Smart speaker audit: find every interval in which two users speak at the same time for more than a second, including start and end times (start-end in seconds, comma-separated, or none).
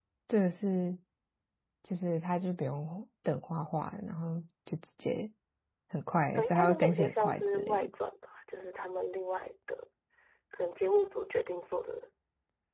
6.3-7.9